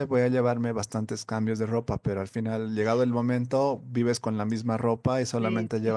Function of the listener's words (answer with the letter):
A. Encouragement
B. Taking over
A